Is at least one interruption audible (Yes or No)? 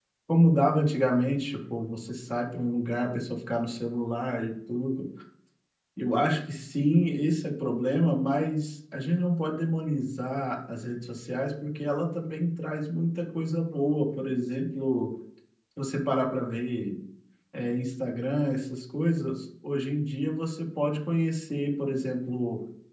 No